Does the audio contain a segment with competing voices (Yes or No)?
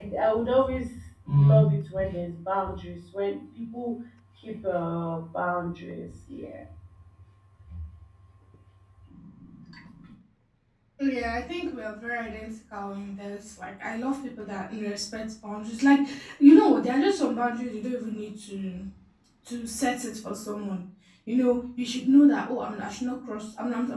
No